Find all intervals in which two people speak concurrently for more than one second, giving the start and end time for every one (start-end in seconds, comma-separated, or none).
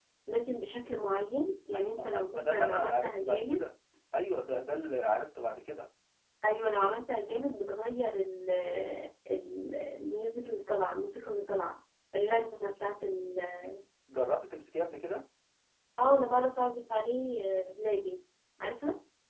1.7-3.6